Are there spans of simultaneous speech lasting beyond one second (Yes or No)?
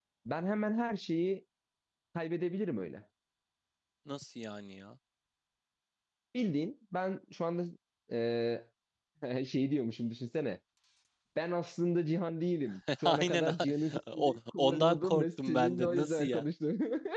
Yes